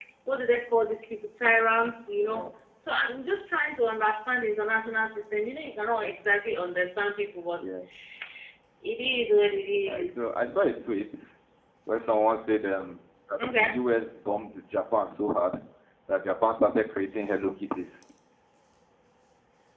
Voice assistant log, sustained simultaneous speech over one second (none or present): none